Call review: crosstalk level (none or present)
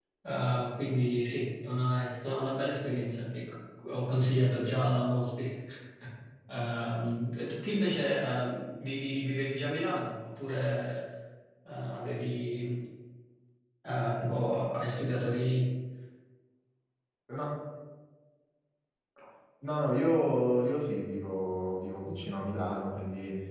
none